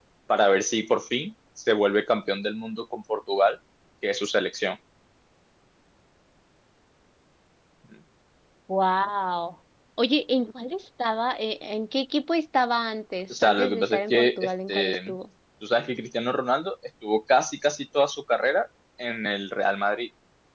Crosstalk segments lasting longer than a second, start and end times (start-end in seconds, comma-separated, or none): 13.4-15.2